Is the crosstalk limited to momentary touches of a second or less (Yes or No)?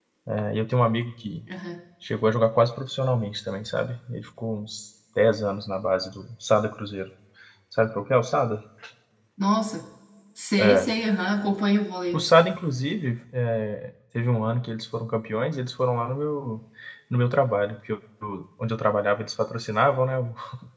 Yes